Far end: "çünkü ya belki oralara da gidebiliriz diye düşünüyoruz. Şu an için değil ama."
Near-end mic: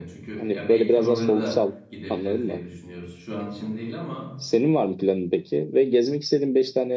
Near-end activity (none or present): present